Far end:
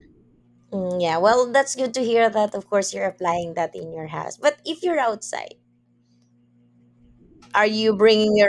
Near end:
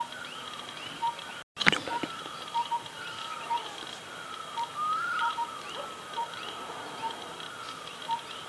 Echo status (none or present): none